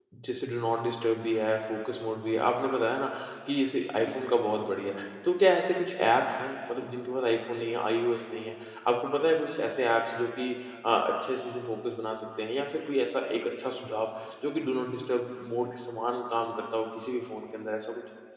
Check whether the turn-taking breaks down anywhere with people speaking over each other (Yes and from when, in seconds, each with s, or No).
No